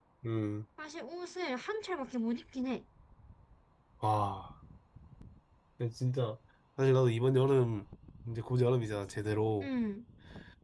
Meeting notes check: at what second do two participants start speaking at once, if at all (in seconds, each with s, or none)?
none